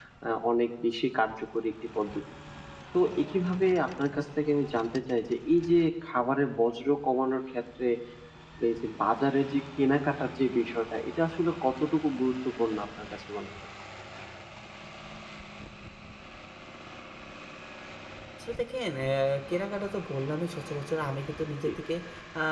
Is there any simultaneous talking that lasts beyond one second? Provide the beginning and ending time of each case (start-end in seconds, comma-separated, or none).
none